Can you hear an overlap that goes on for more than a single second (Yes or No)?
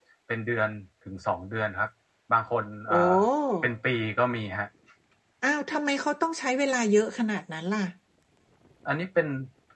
No